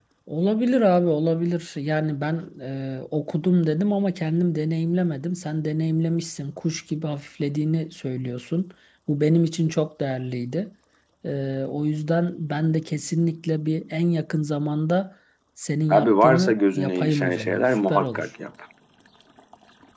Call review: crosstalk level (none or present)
present